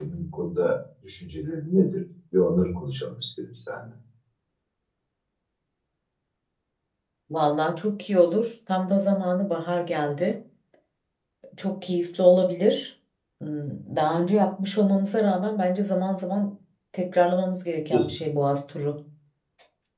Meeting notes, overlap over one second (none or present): none